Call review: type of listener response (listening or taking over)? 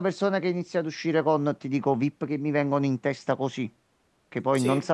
listening